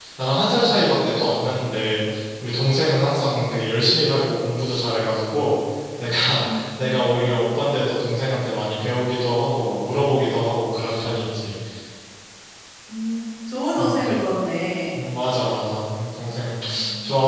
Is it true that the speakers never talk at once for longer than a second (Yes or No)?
Yes